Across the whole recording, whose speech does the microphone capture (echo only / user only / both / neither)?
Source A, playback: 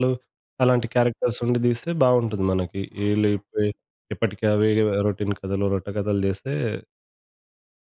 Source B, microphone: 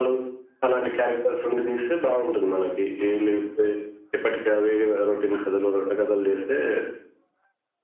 echo only